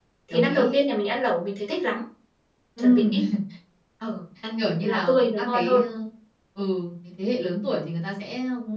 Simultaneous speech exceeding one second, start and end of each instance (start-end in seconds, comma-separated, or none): 4.6-5.8